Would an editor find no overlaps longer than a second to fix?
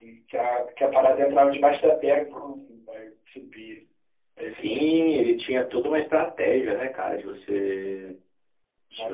Yes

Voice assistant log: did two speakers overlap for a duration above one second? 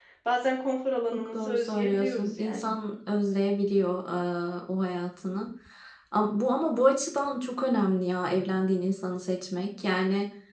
Yes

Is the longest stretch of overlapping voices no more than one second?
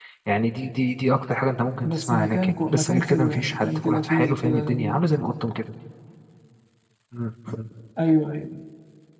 No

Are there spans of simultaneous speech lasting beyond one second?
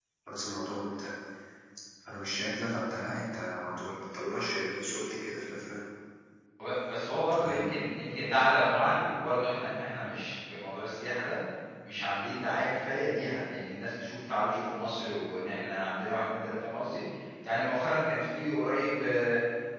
No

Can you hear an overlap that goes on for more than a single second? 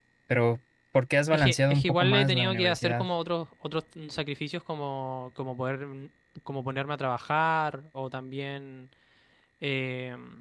Yes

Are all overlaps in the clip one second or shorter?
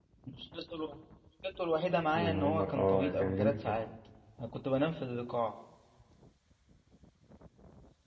No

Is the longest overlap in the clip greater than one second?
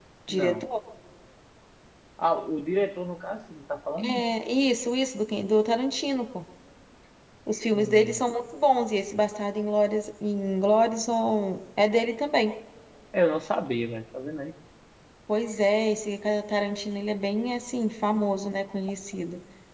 No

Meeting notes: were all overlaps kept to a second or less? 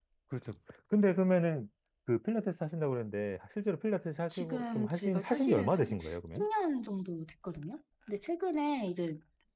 No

